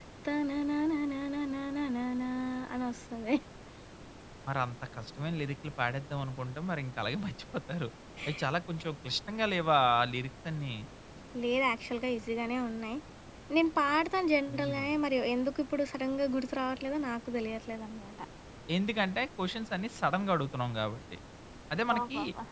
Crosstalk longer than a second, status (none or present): none